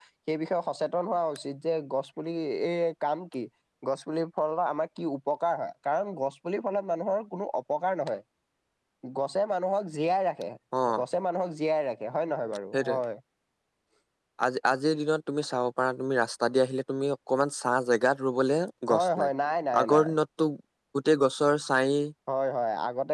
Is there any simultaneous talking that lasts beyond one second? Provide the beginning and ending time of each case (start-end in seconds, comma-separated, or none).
none